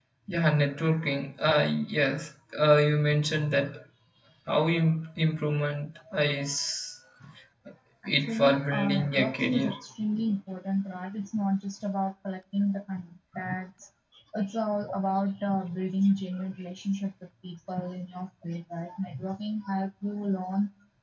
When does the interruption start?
8 s

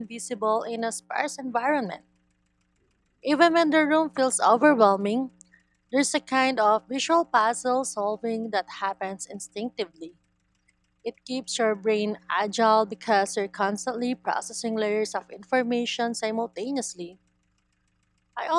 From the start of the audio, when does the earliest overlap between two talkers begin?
none

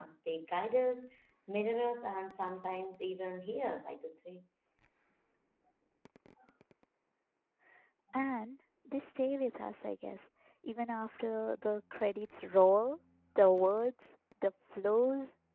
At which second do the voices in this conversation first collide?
none

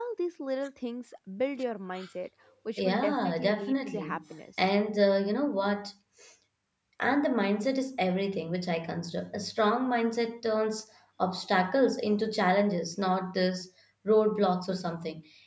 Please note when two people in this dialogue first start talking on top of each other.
3 s

